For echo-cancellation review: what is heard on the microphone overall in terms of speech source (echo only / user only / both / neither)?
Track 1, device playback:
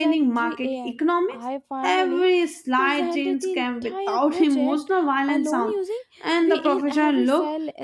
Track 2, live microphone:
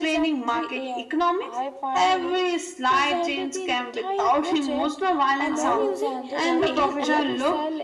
both